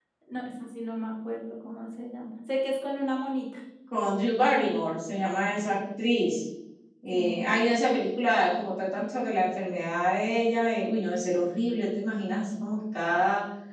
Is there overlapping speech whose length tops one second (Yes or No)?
No